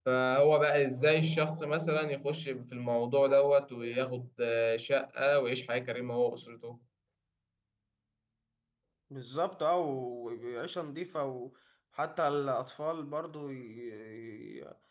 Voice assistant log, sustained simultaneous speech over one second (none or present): none